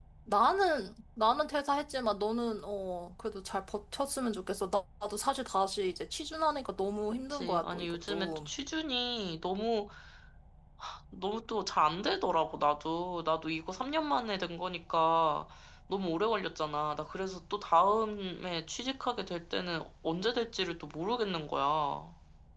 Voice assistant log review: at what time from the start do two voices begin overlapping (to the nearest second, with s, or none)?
7 s